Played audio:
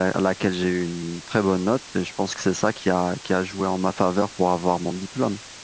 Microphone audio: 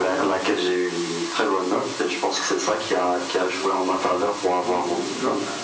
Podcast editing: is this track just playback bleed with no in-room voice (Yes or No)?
No